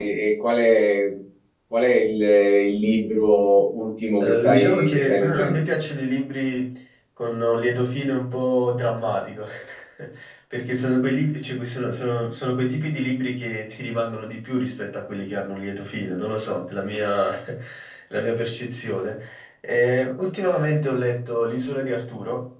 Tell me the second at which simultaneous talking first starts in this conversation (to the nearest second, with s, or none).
4 s